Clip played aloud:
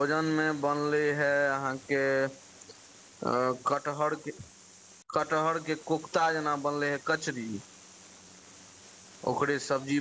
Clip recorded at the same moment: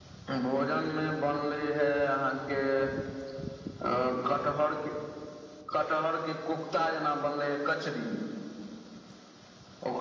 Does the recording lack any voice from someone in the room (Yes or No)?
Yes